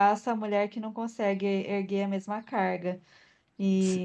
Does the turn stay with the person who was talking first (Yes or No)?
Yes